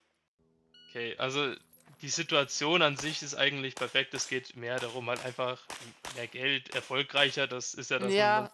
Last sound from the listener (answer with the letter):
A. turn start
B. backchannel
A